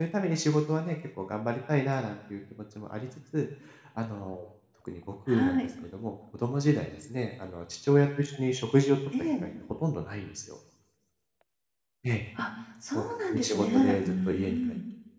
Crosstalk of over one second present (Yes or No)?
Yes